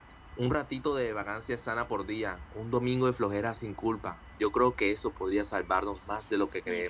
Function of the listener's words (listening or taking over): taking over